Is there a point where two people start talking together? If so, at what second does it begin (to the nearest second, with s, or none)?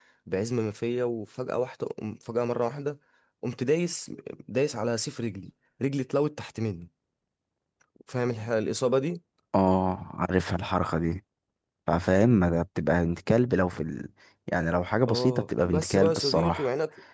15 s